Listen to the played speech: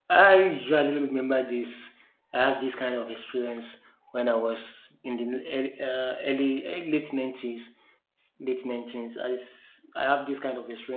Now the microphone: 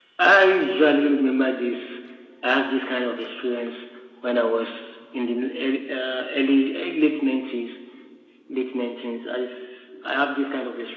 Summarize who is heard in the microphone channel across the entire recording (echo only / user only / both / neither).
echo only